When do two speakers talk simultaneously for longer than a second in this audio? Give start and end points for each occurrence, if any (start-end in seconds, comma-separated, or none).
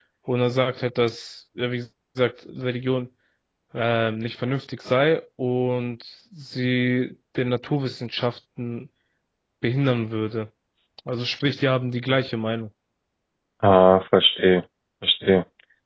none